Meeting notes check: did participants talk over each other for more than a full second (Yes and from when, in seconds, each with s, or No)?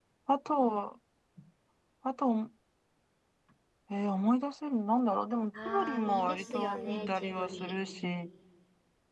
Yes, from 5.5 s